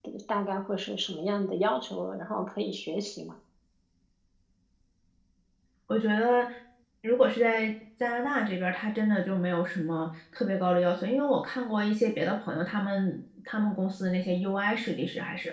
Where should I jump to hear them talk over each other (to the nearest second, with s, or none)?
none